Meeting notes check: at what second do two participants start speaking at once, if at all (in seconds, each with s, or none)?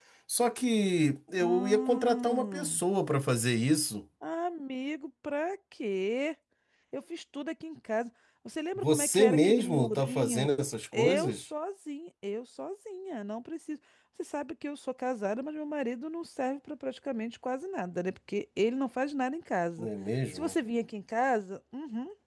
1.4 s